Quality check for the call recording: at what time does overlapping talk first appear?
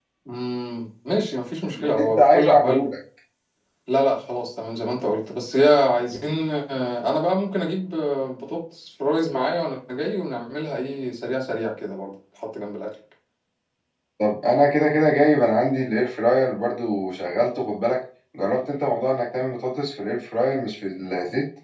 1.6 s

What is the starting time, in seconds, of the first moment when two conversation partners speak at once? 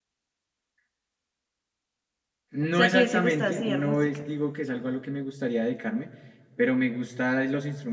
2.7 s

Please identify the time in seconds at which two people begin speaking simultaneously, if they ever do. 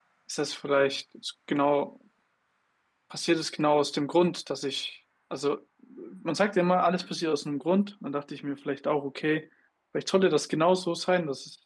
none

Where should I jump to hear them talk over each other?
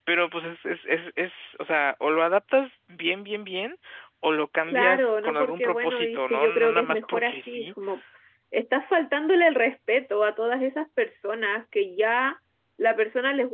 4.7 s

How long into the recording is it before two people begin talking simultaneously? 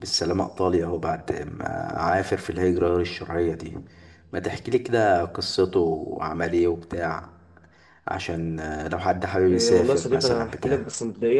9.5 s

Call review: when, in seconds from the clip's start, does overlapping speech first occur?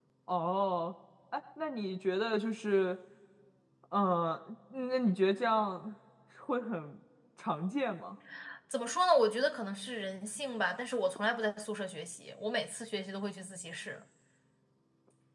none

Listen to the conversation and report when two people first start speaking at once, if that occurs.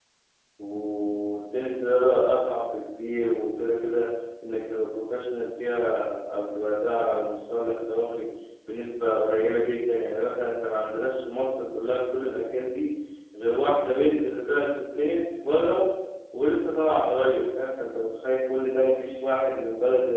none

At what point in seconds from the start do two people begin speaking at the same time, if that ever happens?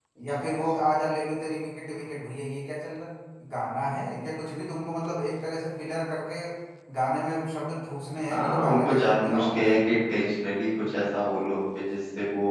8.3 s

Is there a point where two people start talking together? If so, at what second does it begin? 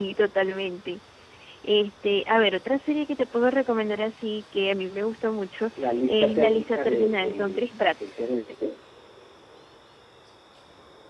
5.8 s

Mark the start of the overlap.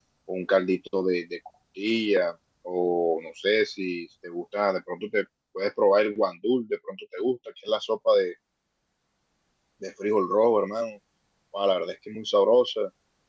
none

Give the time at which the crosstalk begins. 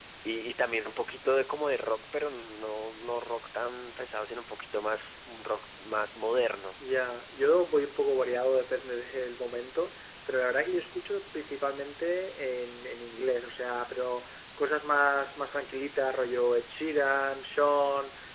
none

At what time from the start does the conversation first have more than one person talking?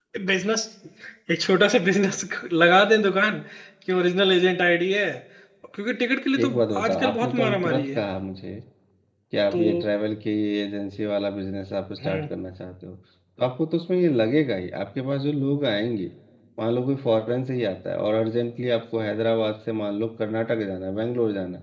6.4 s

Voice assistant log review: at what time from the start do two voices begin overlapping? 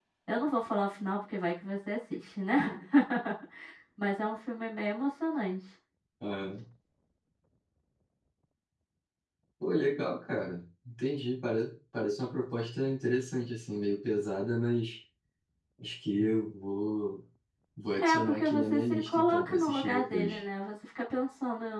17.9 s

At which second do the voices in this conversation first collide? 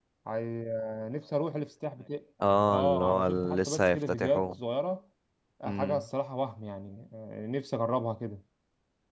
2.7 s

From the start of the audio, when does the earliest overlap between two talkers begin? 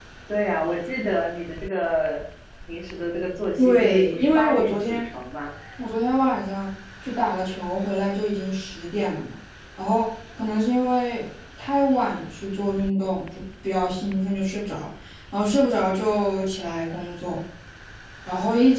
3.6 s

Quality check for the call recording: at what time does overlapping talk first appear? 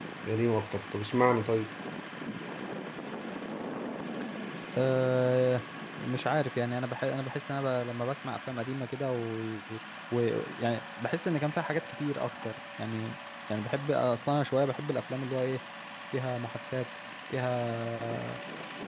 none

